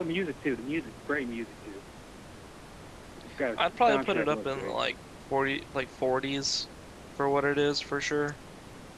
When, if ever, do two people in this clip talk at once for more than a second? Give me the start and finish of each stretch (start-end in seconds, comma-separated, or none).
3.6-4.8